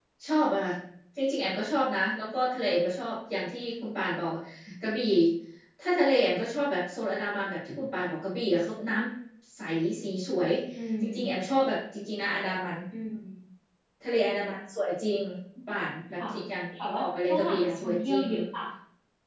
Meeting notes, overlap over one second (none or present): present